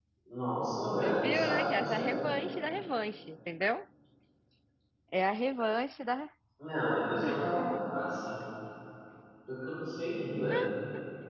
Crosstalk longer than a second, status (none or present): present